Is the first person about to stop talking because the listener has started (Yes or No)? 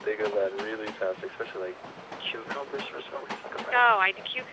Yes